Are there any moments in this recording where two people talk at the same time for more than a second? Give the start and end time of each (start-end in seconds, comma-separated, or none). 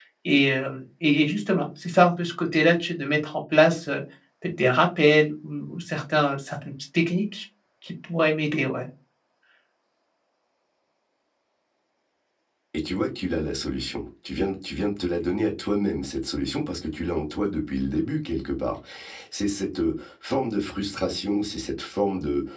none